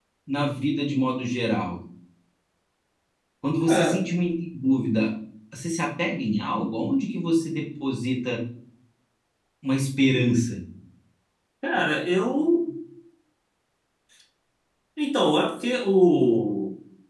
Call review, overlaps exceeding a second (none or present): none